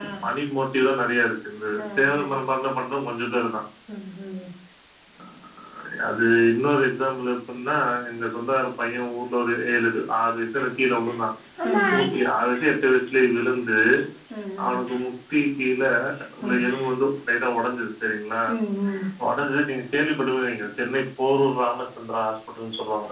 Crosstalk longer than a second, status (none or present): none